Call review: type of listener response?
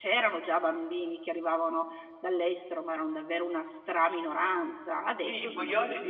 taking over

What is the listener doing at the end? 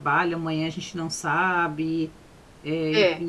listening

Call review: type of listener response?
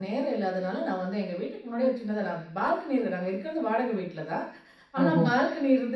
listening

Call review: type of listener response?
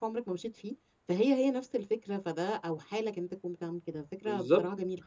taking over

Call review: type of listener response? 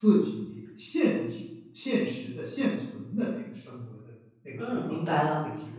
taking over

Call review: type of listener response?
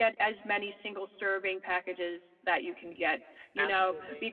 listening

